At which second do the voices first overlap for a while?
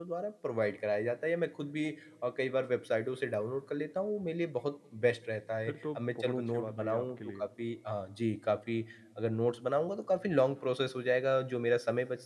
5.7 s

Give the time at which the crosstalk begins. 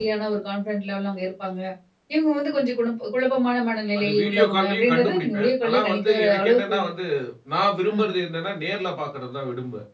4.0 s

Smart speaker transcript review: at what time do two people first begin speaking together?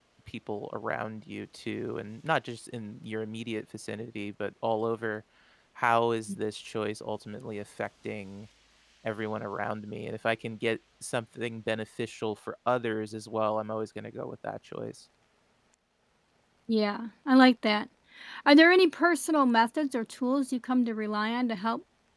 none

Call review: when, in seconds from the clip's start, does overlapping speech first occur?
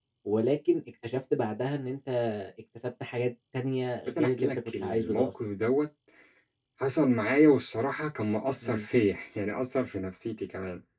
4.1 s

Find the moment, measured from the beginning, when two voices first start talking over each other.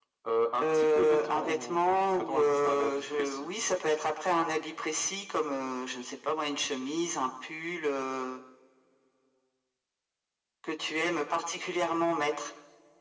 0.6 s

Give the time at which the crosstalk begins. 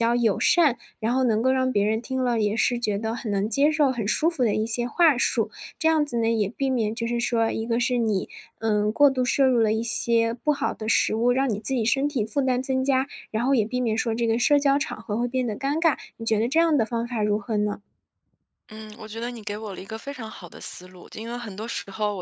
none

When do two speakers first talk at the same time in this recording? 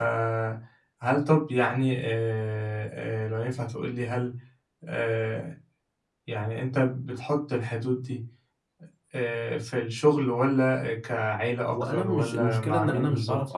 11.7 s

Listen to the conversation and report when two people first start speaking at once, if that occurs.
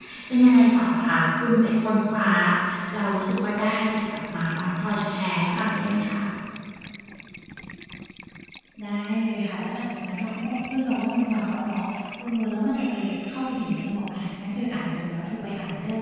none

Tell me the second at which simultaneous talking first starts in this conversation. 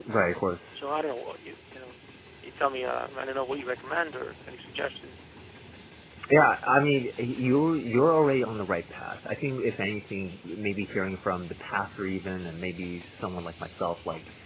none

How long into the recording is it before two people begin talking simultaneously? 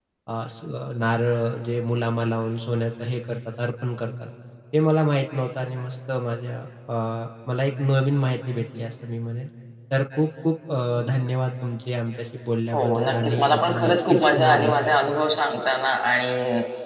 12.7 s

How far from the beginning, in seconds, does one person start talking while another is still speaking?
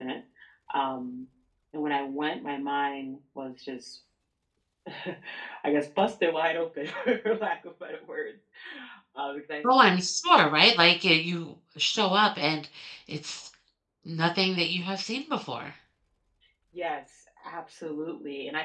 none

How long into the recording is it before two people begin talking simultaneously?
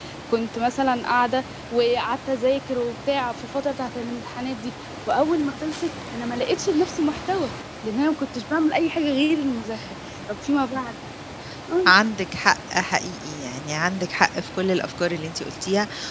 none

